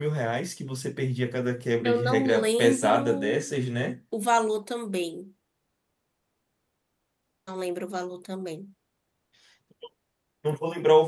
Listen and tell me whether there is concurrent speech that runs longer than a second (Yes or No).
Yes